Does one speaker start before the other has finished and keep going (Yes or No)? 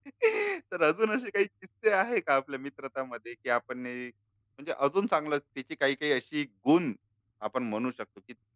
No